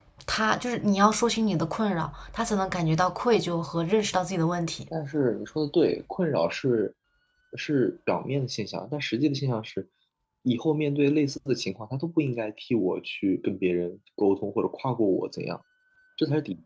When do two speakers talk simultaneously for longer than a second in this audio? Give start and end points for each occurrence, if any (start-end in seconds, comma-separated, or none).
none